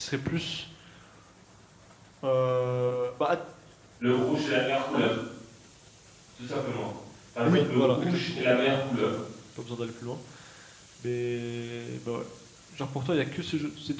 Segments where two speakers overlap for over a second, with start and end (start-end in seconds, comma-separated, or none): 7.4-9.1